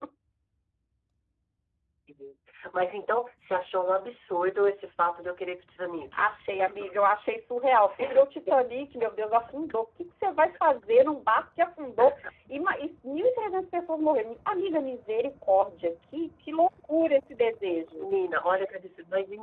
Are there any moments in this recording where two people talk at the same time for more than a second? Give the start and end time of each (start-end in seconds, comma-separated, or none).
none